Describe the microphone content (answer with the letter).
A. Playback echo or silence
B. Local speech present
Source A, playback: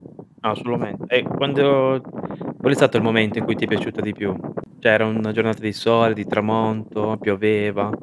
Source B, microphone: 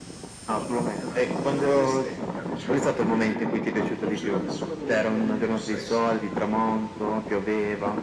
B